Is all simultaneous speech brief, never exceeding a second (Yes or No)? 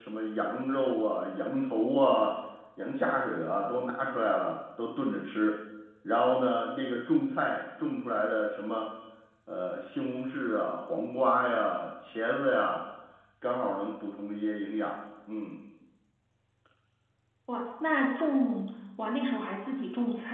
Yes